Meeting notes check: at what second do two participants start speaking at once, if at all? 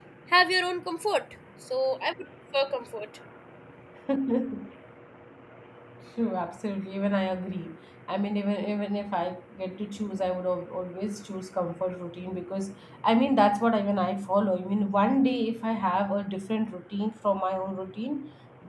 none

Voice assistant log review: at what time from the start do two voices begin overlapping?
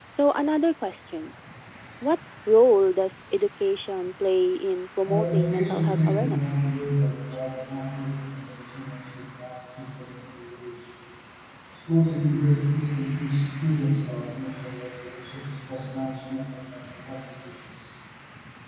5.0 s

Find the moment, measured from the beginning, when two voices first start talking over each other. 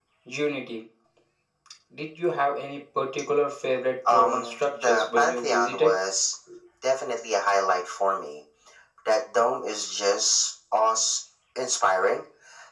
4.0 s

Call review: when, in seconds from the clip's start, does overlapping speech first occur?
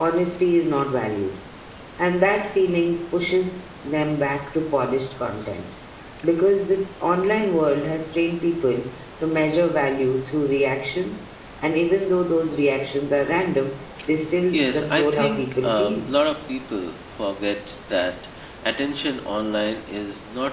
14.5 s

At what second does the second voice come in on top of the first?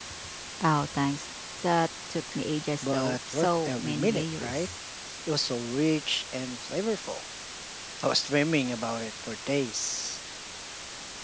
2.8 s

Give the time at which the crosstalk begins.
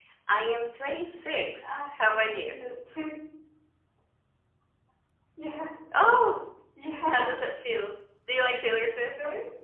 1.1 s

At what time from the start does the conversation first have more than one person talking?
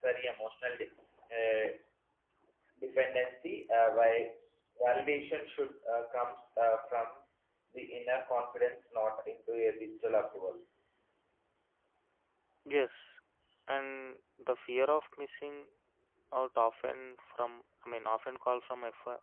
none

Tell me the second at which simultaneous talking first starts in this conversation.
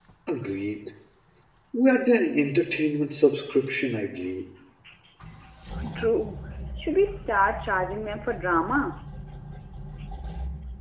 none

